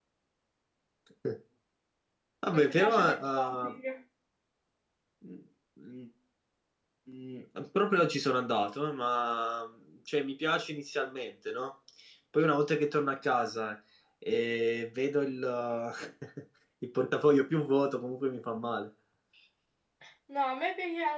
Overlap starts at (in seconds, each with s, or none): 2.5 s